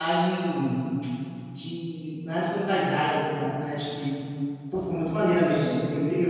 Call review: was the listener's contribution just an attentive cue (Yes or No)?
Yes